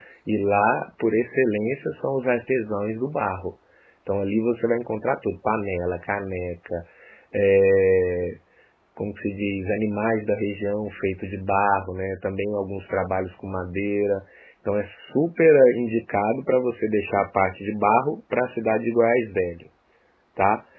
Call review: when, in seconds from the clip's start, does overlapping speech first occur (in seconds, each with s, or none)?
none